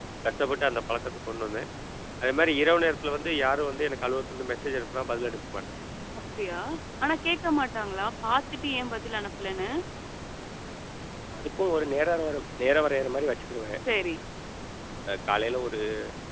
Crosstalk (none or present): none